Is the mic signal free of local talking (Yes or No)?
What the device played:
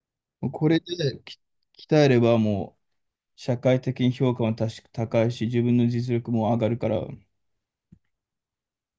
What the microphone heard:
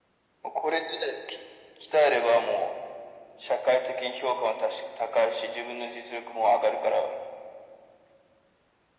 Yes